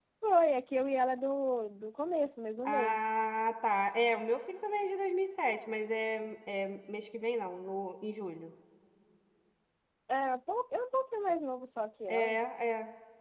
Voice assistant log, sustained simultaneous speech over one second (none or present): none